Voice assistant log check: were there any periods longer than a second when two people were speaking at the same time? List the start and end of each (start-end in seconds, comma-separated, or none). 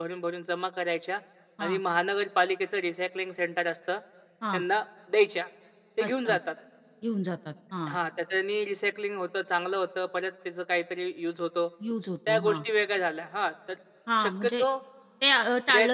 none